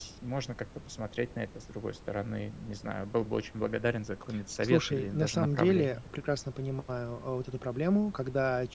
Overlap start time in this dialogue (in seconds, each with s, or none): 4.6 s